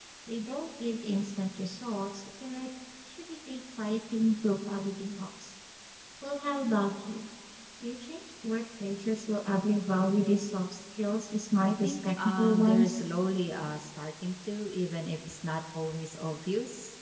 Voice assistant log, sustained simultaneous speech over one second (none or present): present